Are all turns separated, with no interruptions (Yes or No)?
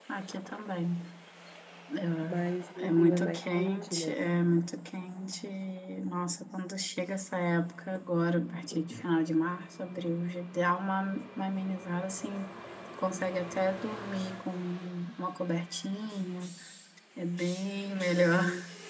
No